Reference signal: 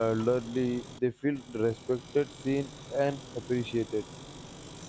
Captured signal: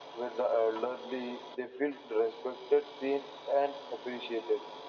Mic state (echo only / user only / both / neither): echo only